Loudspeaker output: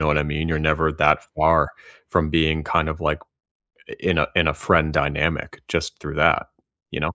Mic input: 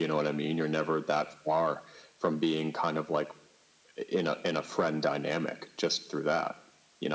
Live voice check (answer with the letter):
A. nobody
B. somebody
A